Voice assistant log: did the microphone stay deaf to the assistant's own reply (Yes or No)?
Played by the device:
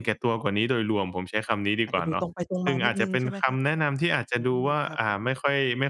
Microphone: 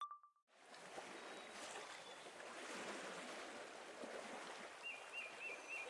Yes